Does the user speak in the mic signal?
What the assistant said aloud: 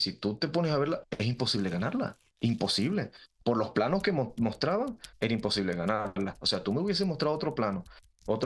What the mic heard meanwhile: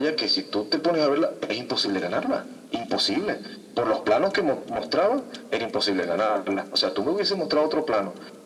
No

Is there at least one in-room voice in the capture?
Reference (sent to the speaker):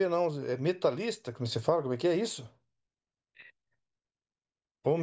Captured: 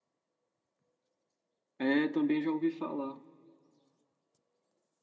Yes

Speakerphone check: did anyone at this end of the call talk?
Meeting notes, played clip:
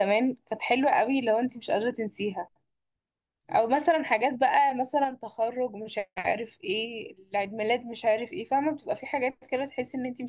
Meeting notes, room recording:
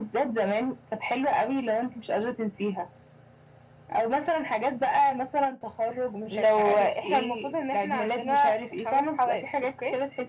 Yes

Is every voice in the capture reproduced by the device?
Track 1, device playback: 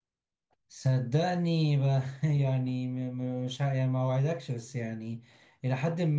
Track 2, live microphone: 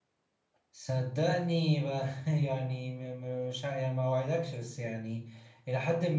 Yes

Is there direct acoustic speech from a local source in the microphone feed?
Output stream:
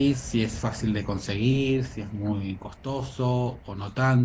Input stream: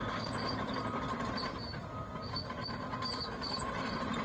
No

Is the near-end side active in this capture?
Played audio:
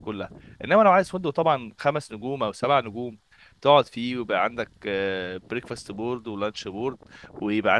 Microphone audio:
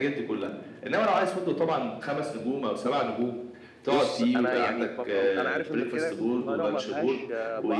Yes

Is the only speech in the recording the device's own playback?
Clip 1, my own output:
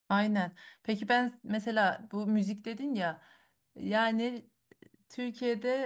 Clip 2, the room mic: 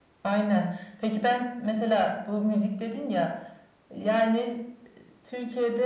Yes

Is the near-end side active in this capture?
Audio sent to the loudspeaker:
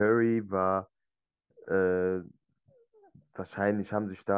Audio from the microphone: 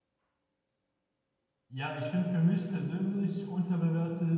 Yes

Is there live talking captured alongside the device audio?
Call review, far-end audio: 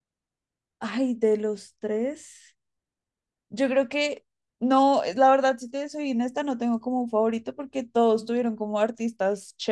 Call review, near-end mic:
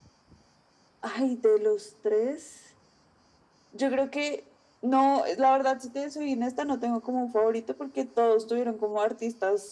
No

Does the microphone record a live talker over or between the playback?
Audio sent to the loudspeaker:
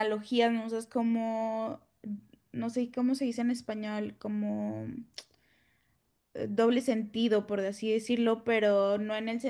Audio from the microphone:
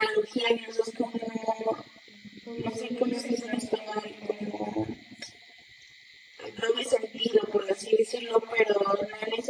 Yes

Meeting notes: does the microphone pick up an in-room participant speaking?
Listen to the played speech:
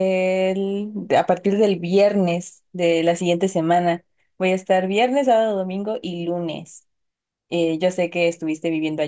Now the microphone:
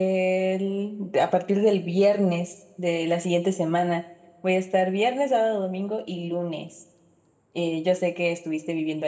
No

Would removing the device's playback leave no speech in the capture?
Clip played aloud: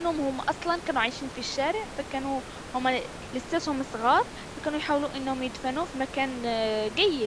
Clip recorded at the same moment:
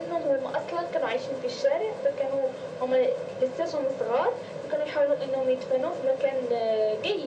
Yes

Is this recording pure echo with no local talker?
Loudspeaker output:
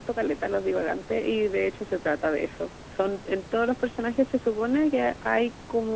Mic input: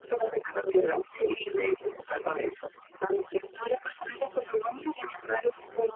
Yes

